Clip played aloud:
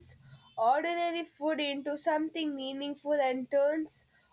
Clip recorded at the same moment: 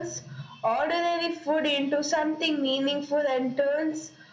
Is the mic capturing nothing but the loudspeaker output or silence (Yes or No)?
Yes